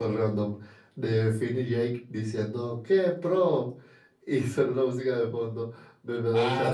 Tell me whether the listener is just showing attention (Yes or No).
Yes